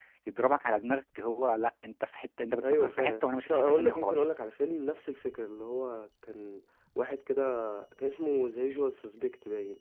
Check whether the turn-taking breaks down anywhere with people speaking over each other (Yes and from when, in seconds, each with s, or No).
Yes, from 2.6 s